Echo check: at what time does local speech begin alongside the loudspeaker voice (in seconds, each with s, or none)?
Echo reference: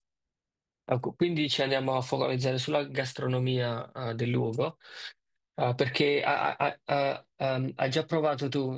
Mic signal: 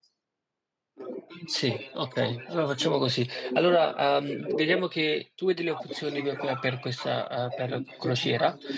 1.4 s